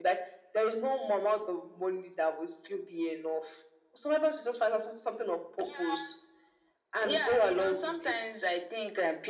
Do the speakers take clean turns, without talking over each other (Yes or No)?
No